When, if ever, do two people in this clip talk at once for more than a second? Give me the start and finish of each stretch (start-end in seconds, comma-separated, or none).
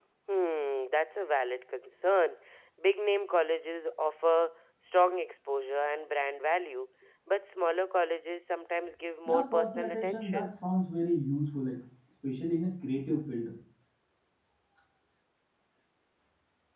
9.3-10.5